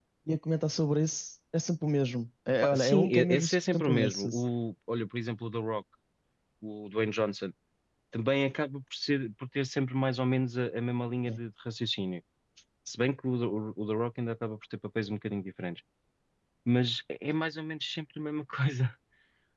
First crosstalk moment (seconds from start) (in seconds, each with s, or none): 2.6 s